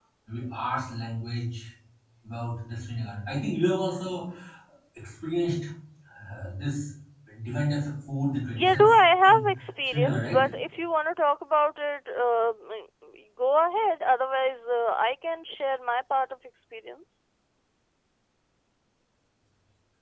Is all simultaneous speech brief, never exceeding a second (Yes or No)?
No